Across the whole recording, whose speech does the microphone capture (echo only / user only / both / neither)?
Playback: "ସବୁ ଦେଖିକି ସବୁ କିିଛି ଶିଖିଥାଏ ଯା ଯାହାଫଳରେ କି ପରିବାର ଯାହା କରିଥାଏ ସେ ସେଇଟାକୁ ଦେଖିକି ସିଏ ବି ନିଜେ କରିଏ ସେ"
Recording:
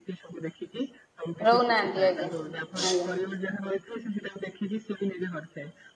both